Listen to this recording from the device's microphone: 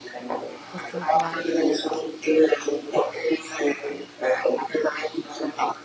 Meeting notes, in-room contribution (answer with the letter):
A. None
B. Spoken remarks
B